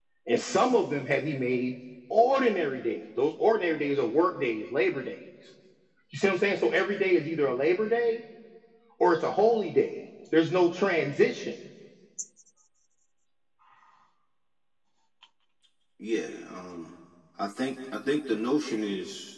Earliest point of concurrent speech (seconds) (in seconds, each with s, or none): none